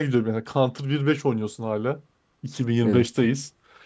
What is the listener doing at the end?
listening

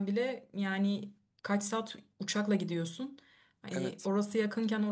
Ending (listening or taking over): listening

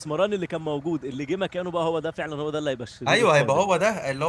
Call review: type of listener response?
taking over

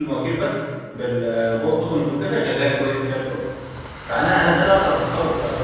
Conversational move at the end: listening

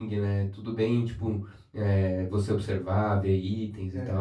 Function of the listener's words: taking over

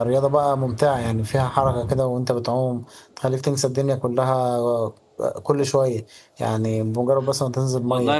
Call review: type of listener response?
taking over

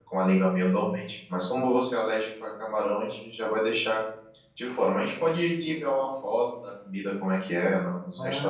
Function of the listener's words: taking over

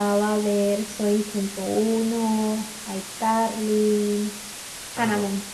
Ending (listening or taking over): taking over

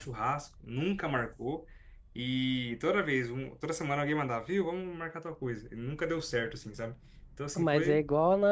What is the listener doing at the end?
taking over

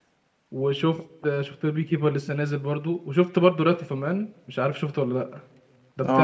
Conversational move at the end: taking over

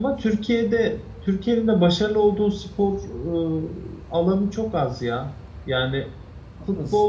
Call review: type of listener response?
listening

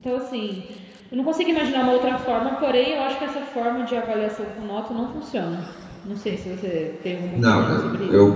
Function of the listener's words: taking over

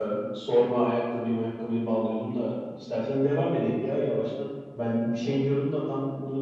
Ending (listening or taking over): listening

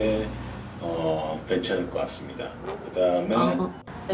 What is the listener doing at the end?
listening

